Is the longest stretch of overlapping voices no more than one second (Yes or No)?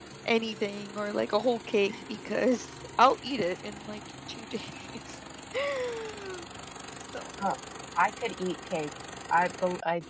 Yes